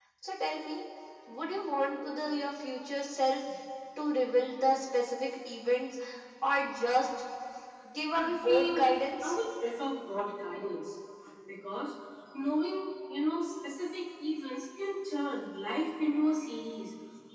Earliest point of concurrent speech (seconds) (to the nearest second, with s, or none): 8 s